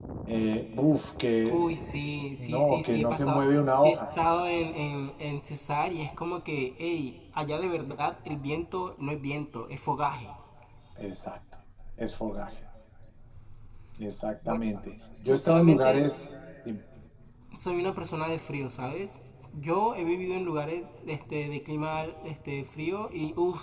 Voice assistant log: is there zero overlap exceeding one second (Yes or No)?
No